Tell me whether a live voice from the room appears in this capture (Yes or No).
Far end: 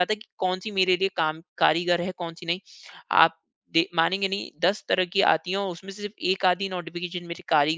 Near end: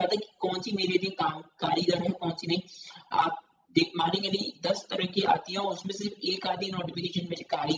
No